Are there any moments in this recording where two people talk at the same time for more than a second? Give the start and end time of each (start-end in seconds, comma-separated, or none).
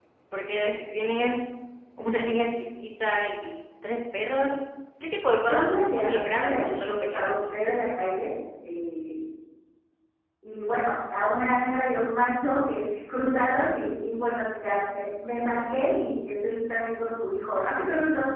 5.5-7.4